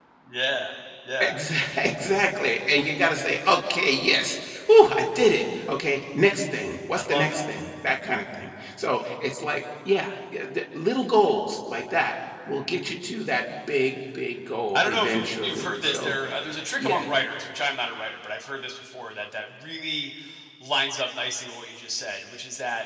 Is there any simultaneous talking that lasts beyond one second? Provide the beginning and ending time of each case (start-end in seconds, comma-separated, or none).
14.7-16.1